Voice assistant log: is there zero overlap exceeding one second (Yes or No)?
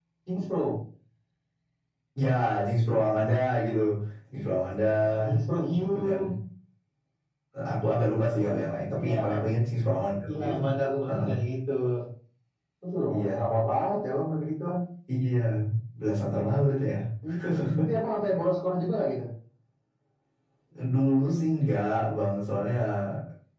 Yes